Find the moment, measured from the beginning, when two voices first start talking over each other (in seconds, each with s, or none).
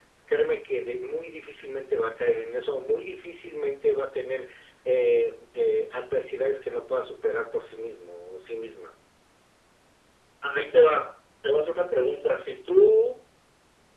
none